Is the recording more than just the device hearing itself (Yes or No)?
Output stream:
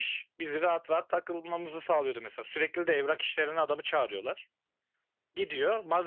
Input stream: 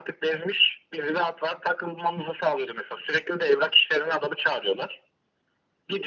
No